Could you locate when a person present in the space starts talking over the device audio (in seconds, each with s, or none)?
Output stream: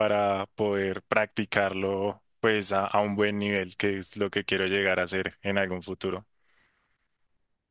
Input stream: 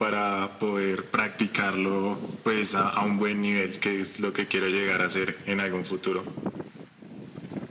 none